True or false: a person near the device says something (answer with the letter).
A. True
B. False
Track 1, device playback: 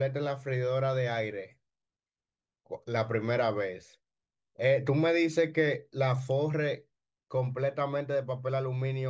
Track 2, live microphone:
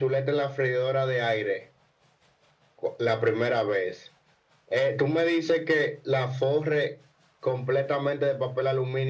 B